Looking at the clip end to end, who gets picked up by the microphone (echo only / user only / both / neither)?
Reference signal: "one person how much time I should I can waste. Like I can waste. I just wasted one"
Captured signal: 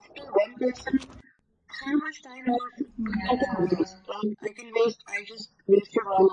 both